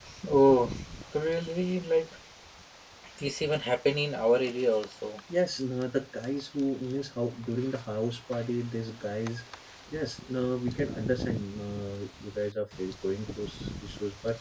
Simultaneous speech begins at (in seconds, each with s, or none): none